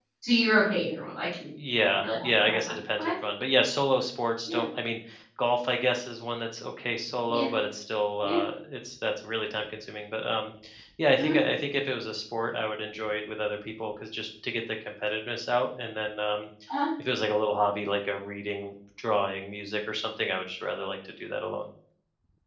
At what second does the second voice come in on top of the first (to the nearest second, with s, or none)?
2 s